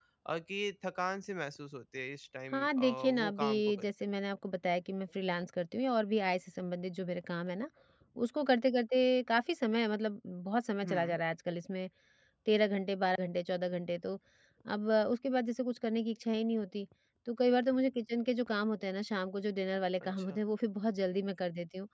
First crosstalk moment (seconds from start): 2.5 s

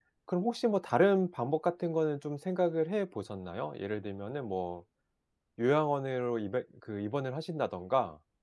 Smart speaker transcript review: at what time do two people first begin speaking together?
none

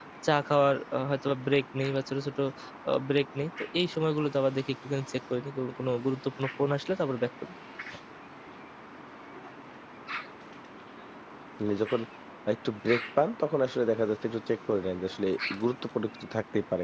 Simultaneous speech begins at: none

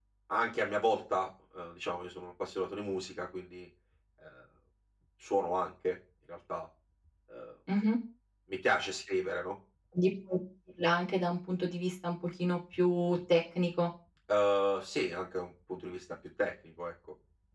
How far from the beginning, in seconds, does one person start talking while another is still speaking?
none

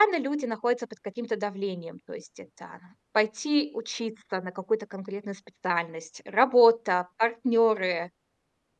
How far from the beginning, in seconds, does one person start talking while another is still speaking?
none

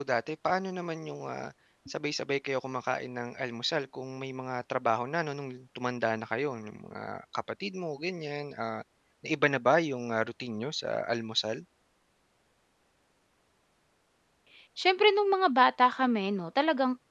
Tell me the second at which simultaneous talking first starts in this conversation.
none

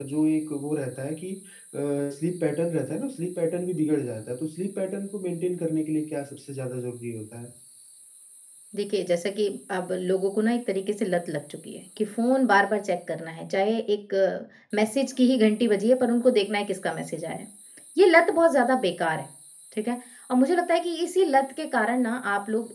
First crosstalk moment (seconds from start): none

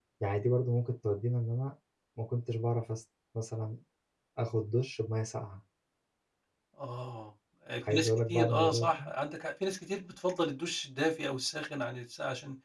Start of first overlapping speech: 7.9 s

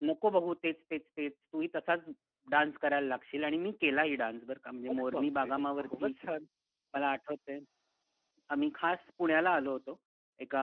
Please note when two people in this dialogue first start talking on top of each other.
4.9 s

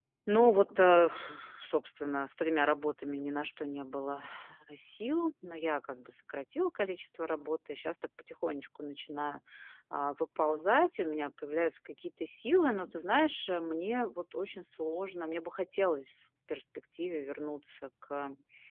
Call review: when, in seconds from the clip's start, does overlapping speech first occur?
none

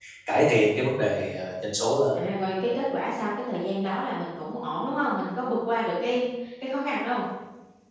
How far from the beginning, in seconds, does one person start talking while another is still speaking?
none

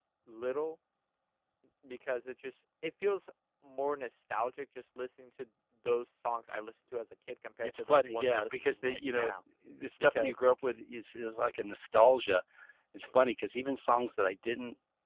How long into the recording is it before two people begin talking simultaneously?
7.6 s

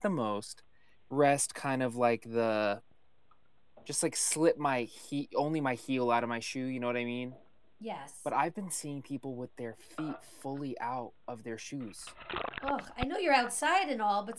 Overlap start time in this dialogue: none

